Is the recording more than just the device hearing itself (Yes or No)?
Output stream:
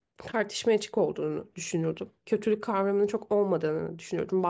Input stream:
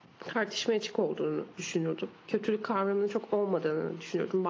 No